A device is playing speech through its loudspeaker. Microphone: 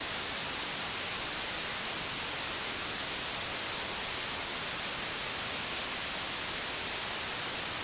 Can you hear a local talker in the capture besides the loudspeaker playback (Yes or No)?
No